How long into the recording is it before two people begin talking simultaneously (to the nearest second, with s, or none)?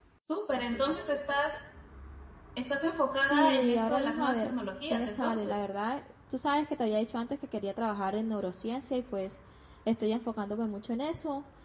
3 s